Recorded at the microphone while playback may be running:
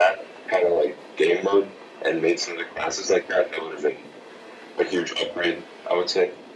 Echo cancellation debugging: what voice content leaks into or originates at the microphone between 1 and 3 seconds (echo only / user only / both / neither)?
echo only